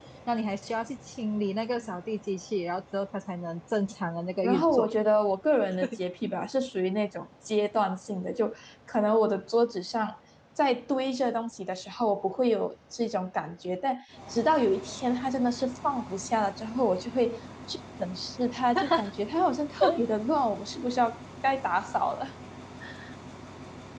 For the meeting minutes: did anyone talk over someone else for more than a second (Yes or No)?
No